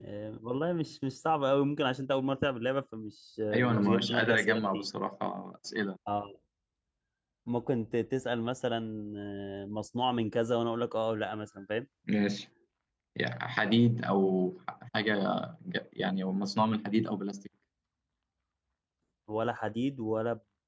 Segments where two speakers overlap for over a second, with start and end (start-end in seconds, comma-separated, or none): 3.5-4.9